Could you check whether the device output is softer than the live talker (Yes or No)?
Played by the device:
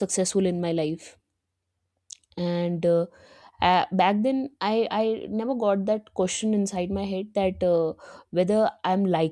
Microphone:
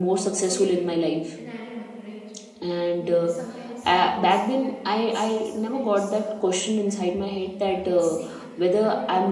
No